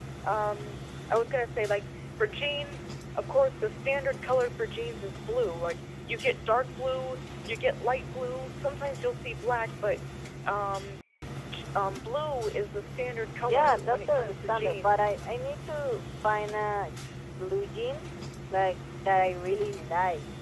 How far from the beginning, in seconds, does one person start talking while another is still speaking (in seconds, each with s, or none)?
13.4 s